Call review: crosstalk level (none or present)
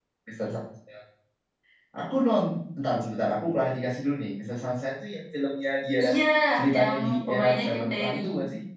present